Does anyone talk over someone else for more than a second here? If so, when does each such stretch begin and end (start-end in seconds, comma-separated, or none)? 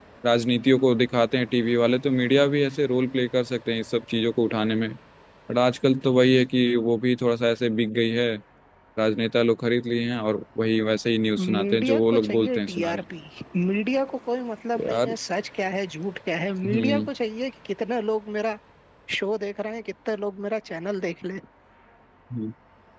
11.4-13.0